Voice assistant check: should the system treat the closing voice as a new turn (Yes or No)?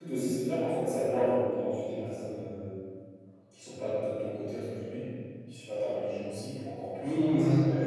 Yes